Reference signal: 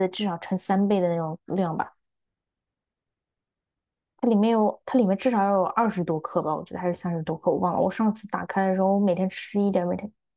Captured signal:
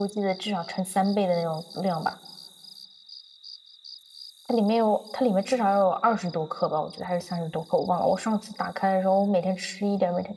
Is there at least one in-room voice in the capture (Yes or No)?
No